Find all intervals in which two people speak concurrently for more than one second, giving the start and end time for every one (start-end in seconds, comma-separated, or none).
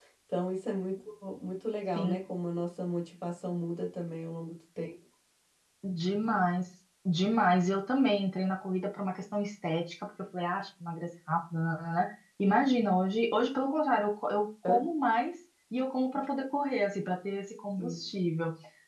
none